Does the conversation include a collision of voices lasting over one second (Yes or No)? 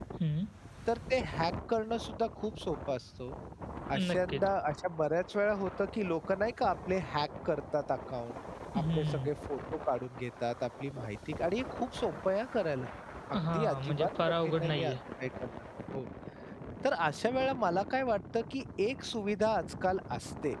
Yes